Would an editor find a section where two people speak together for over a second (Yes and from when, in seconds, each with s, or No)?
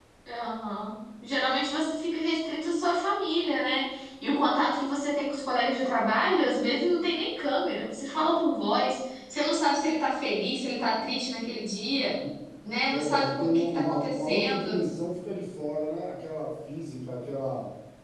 Yes, from 12.9 s